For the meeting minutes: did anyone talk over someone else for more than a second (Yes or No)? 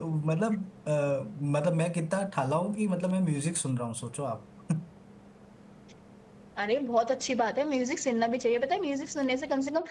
No